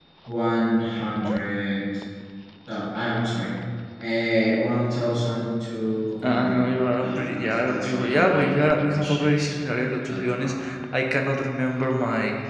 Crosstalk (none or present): present